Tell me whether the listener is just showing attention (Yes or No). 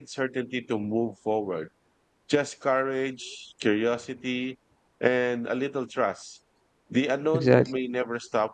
Yes